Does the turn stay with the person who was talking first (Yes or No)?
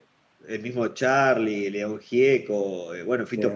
Yes